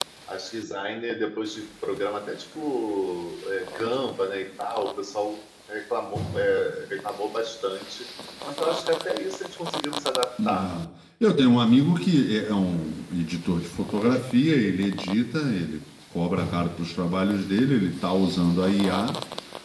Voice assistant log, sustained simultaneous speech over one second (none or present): none